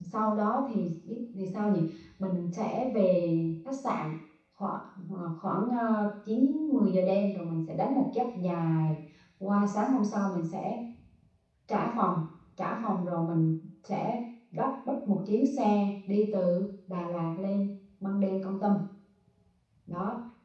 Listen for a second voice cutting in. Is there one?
No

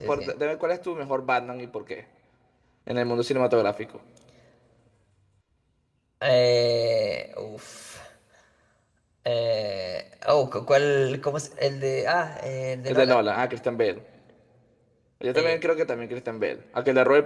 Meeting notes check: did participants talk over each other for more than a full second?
No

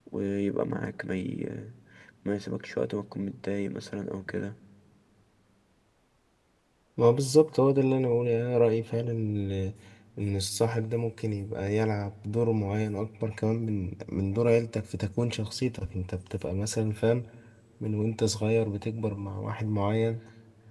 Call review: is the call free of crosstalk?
Yes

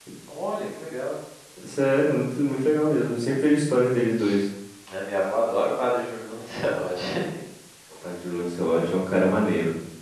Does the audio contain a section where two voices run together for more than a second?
No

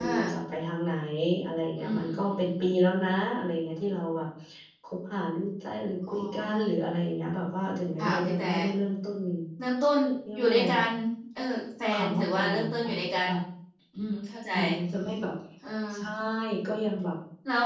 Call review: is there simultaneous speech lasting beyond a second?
Yes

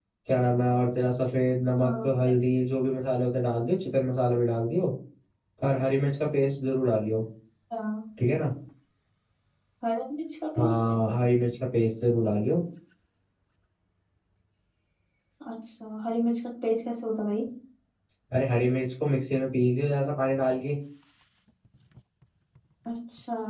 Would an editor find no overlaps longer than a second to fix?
Yes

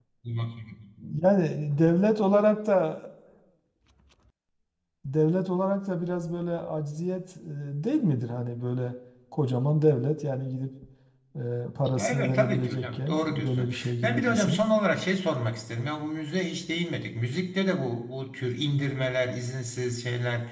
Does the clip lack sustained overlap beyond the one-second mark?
No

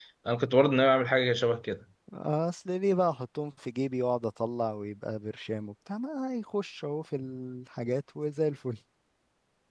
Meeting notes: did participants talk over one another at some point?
No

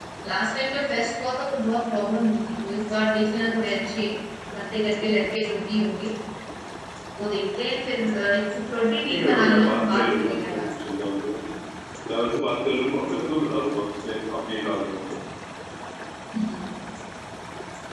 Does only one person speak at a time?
No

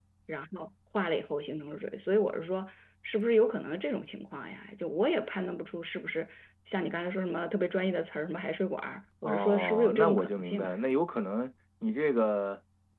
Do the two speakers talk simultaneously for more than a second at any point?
Yes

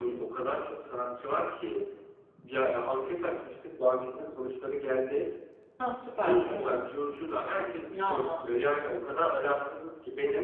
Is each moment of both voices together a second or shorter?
Yes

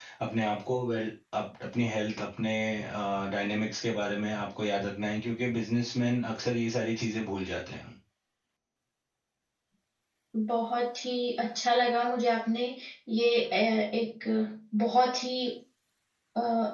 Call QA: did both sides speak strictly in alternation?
Yes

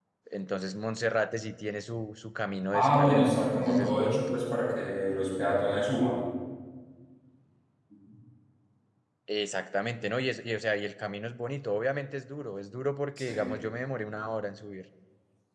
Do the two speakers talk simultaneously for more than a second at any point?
Yes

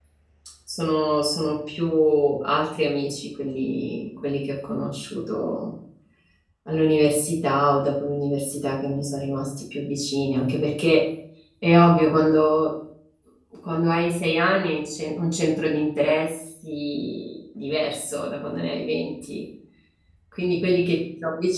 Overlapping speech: No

